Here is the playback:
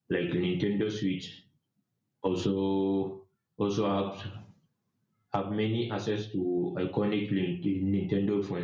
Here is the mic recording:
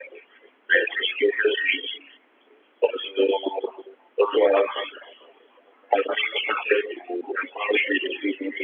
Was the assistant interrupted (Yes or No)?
No